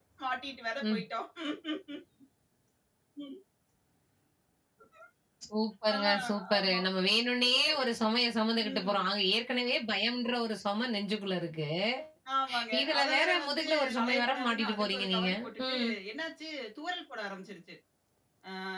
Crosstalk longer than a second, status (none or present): present